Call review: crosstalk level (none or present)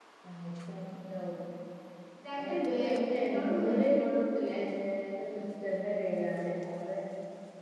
present